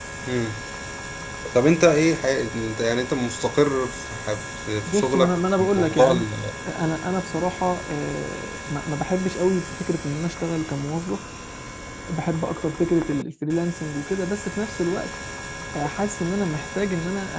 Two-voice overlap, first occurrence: 5 s

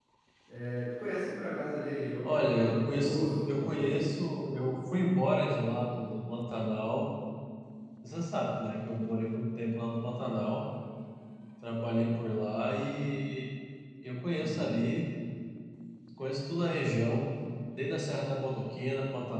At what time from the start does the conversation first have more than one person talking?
2 s

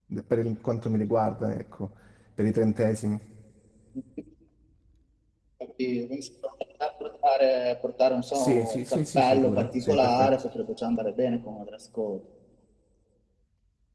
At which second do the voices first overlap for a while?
8 s

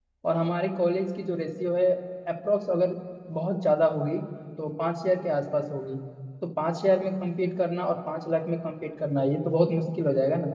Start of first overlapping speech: none

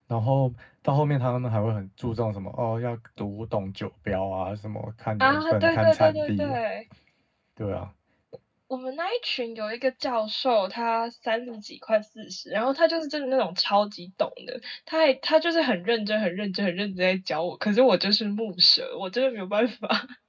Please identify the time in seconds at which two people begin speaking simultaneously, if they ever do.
5 s

